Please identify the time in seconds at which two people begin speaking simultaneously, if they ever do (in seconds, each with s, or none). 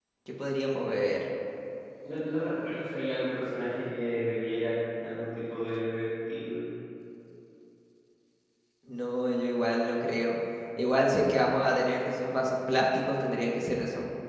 none